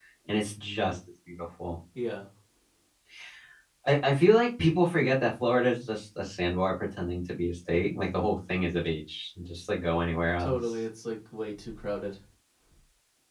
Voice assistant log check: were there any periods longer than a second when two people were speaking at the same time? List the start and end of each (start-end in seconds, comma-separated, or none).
none